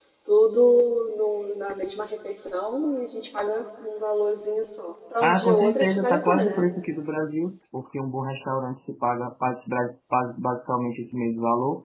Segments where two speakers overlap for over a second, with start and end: 5.2-6.6

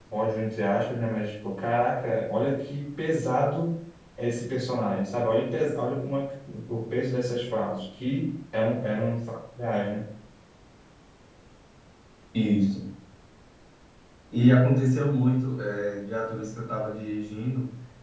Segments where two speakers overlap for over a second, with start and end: none

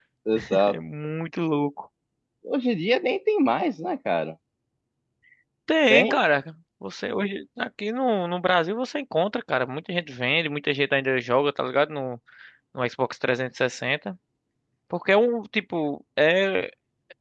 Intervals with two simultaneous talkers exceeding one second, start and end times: none

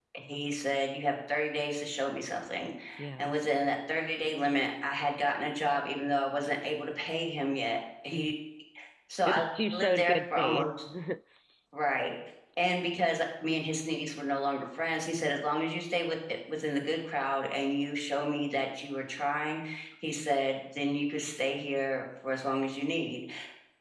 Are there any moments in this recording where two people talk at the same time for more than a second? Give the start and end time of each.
9.3-10.7

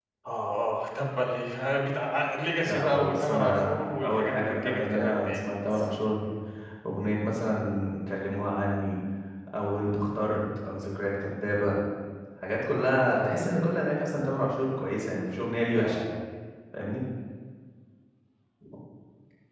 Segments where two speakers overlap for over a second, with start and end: 2.7-5.4

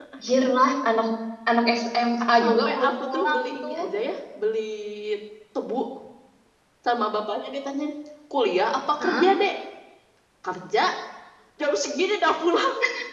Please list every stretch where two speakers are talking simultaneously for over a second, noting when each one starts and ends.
2.4-3.7

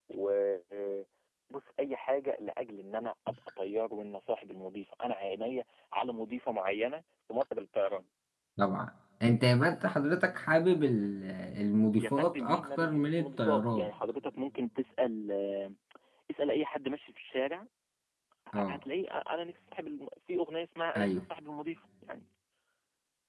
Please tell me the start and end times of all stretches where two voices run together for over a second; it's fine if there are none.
12.0-13.9

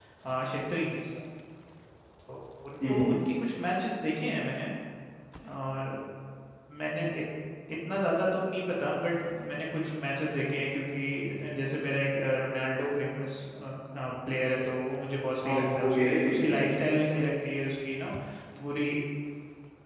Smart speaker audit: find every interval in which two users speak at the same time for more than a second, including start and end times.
15.4-16.7

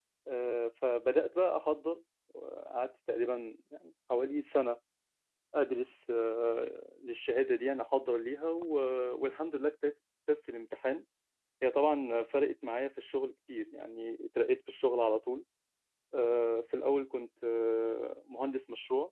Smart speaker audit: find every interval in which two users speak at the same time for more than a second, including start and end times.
none

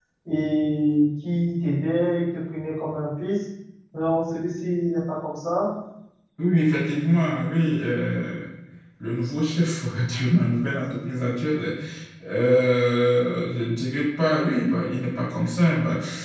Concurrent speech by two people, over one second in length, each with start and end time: none

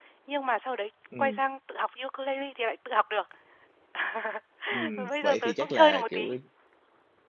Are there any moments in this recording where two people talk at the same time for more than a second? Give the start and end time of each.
5.0-6.3

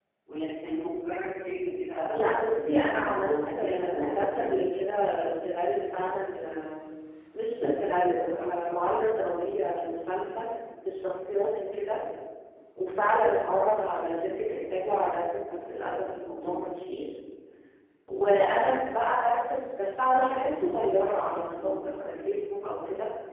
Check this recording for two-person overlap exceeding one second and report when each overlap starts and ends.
2.1-4.5

